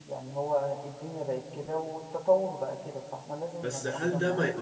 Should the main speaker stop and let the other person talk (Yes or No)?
Yes